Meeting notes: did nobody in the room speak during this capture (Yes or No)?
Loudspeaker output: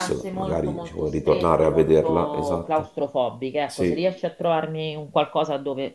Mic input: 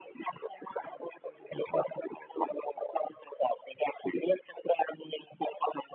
Yes